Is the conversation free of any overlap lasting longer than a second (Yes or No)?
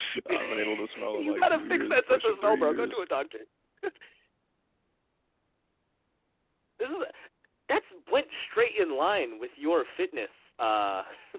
No